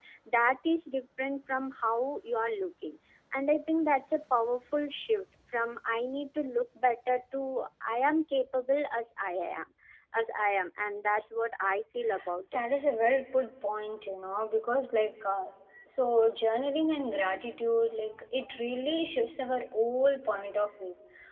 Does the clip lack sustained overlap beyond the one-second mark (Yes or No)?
Yes